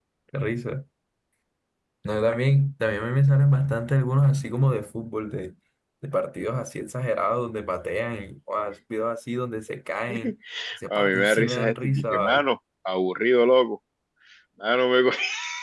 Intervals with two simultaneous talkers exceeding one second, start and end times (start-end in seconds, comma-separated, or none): 10.9-12.4